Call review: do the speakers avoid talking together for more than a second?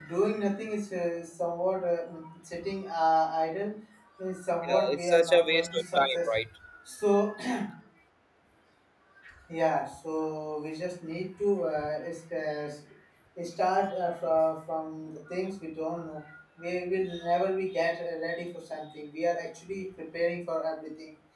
No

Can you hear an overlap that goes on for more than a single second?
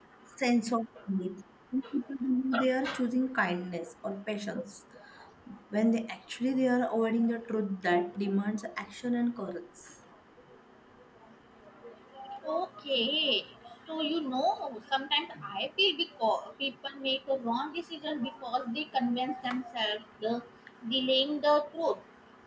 No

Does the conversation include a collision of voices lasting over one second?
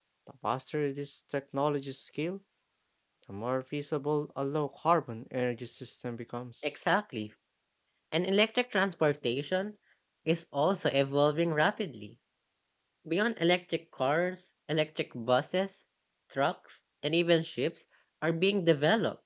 No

